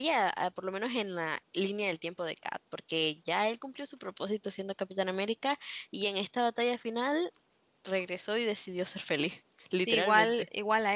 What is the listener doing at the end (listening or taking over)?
taking over